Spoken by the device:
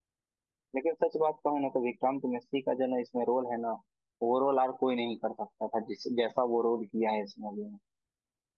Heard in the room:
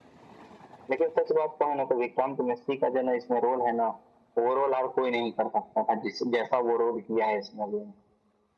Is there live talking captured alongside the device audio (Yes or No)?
No